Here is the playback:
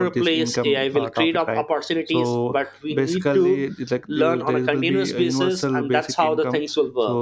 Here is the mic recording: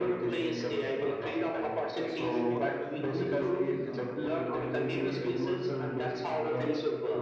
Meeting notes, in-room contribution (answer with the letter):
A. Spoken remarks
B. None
A